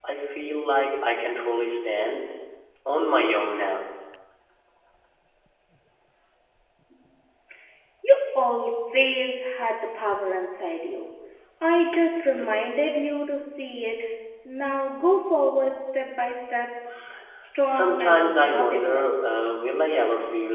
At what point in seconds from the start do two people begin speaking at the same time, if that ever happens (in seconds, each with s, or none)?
17.6 s